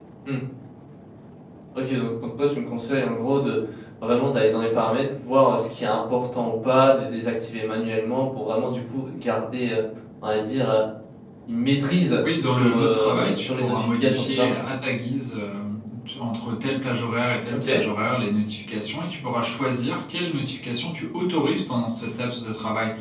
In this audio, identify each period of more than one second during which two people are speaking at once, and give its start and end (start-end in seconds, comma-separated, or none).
12.2-14.5